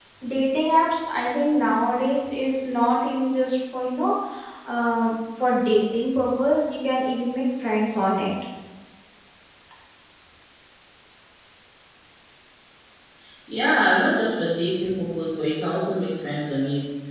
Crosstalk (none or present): none